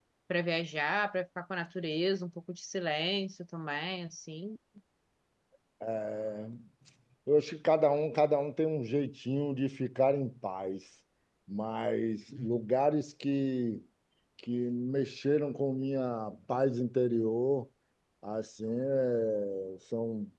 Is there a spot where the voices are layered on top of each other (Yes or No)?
No